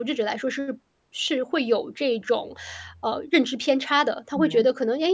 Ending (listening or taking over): listening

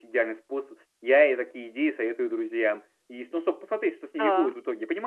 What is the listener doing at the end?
listening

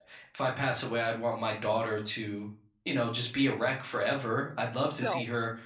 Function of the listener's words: listening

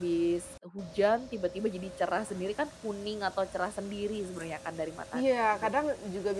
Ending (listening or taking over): taking over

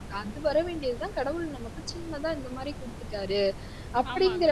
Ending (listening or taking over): taking over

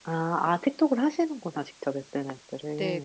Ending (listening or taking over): taking over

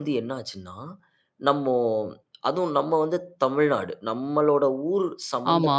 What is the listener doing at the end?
listening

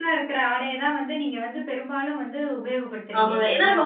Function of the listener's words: taking over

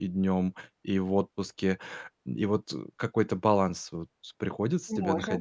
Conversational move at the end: taking over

